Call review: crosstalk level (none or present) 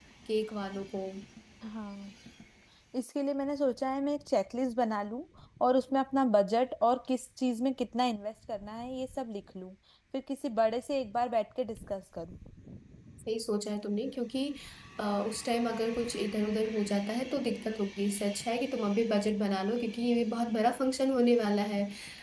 none